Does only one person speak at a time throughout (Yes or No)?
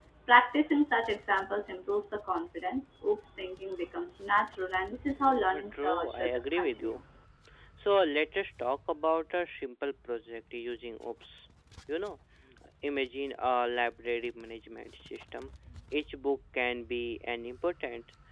No